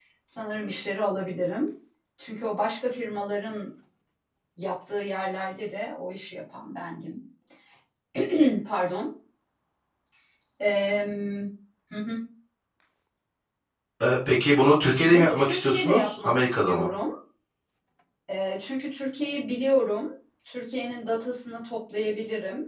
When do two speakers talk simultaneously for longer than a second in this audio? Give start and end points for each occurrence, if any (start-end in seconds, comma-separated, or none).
15.0-16.9